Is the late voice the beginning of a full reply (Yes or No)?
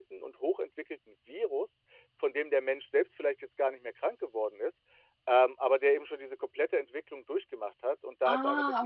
No